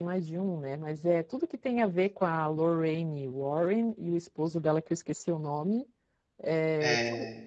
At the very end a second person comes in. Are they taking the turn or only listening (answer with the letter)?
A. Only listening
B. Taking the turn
A